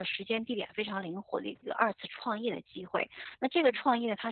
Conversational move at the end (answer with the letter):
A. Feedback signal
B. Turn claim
A